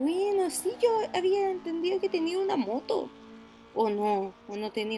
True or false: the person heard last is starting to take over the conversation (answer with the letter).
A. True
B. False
A